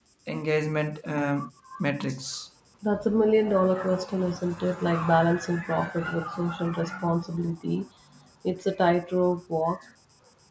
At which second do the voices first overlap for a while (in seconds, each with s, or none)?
none